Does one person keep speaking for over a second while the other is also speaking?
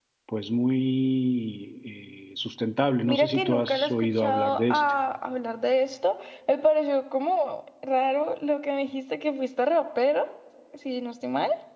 Yes, from 3.1 s

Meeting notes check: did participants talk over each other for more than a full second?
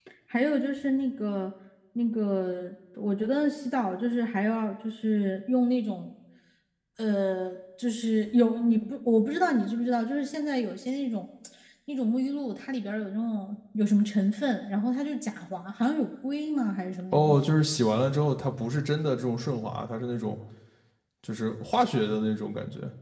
No

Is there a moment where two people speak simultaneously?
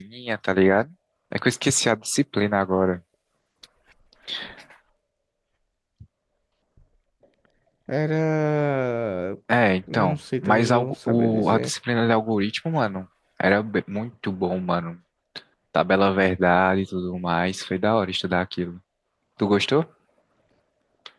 Yes, from 9.9 s

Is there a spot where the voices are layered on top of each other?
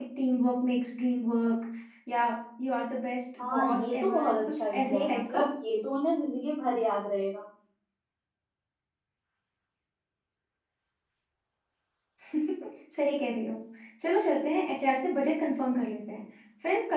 Yes, from 3.4 s

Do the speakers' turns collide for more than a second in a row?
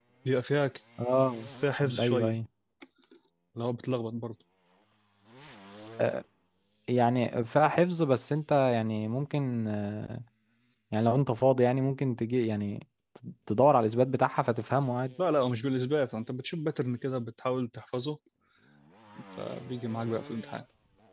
No

